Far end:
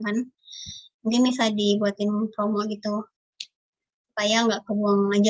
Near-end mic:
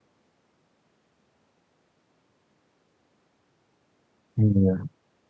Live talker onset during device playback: 4.4 s

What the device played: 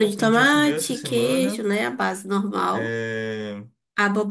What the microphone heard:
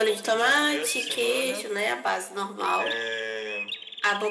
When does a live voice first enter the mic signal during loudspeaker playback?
none

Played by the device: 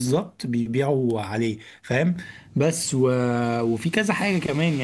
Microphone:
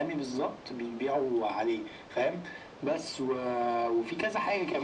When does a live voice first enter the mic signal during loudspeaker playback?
none

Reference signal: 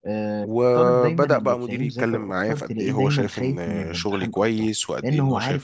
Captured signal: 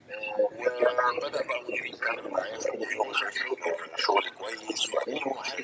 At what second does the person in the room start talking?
none

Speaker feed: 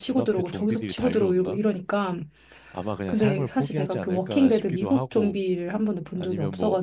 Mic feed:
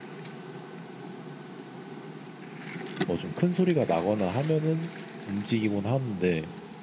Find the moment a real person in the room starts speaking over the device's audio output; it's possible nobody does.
3.0 s

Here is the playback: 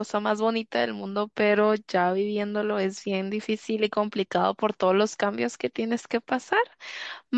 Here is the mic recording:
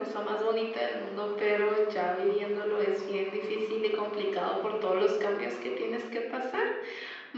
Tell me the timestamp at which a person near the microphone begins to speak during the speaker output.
none

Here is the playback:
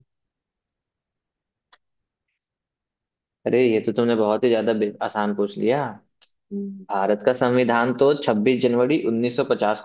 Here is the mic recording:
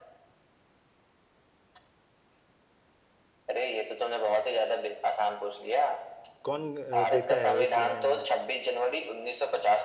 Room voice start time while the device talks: 6.4 s

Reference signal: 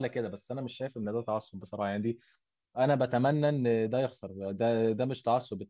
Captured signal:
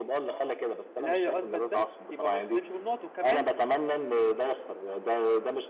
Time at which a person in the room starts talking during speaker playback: 1.0 s

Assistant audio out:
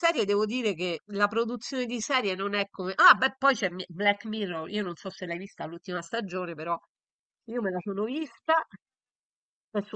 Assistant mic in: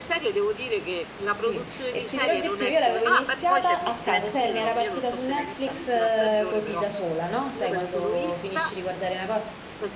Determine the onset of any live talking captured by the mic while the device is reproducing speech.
1.2 s

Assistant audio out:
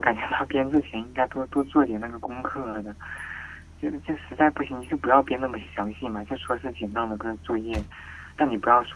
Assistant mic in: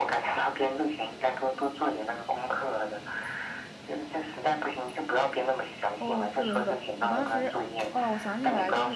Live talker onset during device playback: 6.0 s

